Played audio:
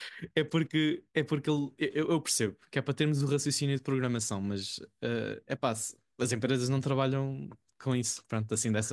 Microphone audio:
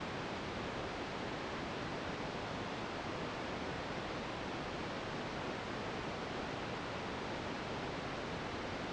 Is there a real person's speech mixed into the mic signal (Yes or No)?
No